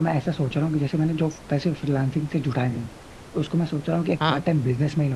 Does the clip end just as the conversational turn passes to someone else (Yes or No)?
No